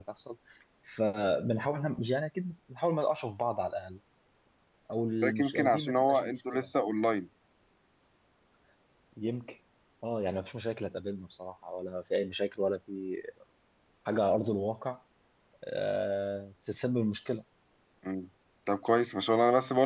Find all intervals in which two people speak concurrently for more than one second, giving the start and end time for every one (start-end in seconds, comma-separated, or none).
5.4-6.6